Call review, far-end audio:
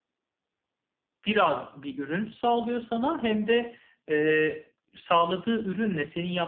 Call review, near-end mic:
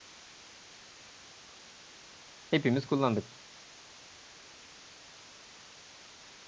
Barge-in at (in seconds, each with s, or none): 2.5 s